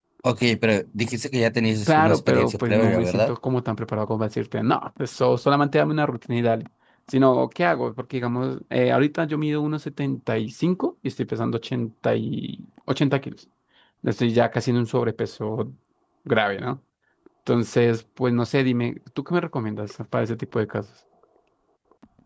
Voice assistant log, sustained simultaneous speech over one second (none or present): present